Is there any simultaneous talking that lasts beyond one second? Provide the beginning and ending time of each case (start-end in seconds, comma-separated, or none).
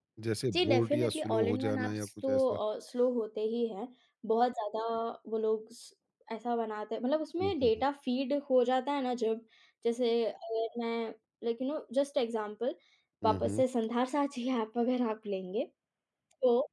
0.5-2.6